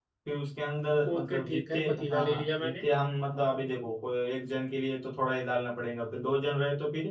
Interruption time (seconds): 1.1 s

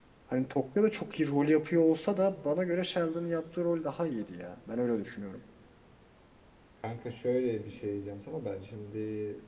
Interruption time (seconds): none

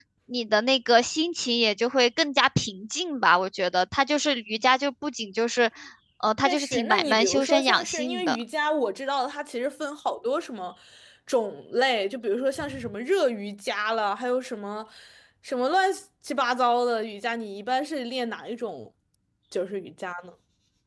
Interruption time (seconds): 6.4 s

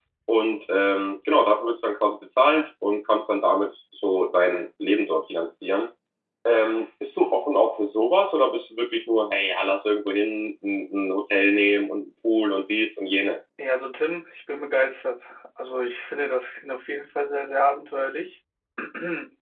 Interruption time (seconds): none

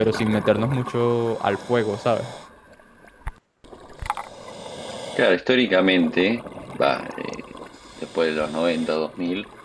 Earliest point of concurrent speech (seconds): none

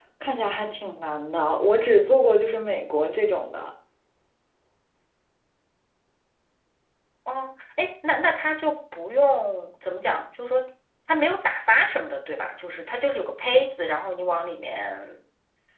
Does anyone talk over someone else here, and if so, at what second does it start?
none

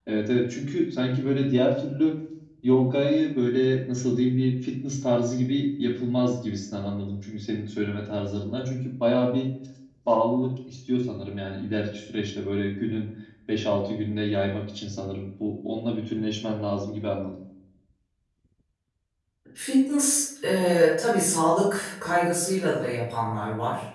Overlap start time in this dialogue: none

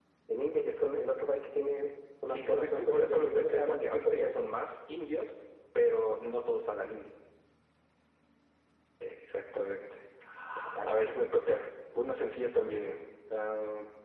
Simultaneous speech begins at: 2.3 s

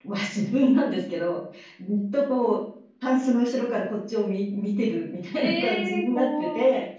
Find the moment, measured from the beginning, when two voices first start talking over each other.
5.4 s

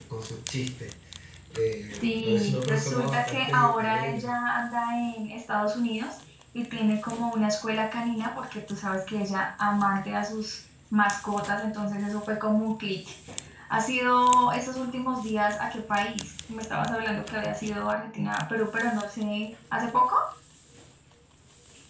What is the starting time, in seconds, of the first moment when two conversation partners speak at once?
2.0 s

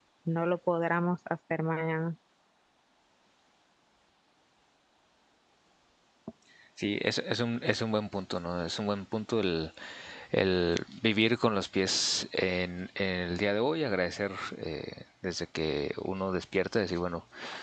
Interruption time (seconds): none

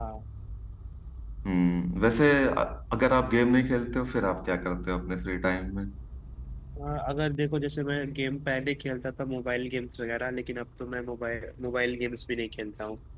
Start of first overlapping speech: none

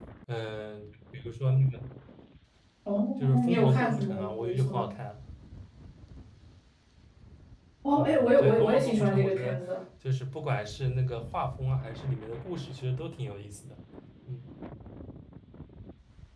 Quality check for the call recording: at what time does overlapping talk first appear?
3.3 s

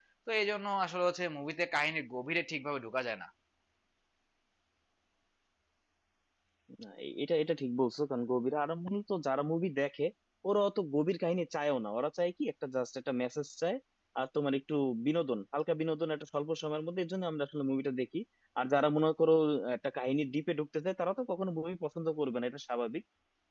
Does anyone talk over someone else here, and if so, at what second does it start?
none

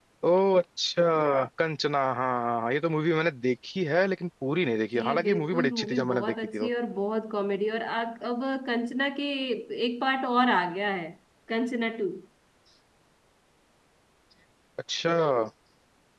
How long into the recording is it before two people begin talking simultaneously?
4.9 s

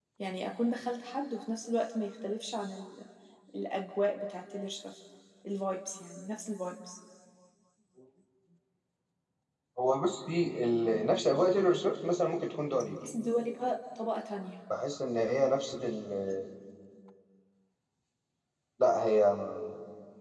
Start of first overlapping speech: none

